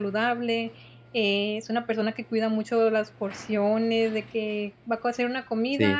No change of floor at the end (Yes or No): Yes